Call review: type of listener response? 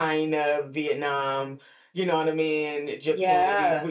listening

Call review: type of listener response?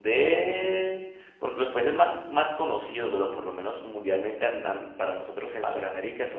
listening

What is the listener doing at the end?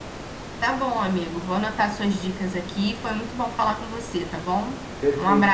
taking over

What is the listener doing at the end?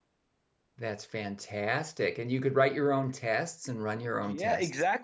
taking over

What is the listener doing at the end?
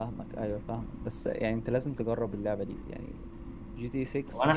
taking over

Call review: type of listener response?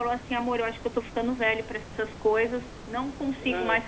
listening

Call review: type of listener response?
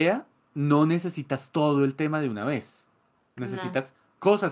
listening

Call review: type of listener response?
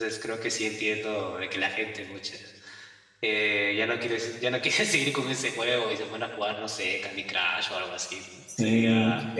taking over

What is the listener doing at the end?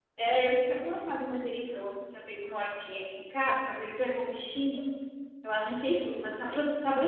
listening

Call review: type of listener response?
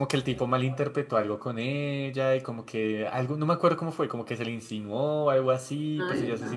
listening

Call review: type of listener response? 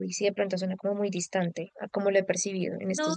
taking over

